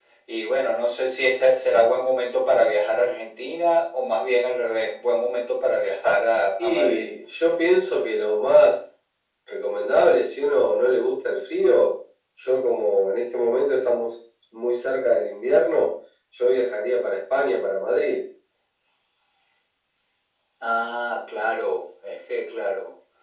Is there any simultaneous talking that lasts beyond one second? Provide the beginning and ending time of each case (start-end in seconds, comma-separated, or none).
none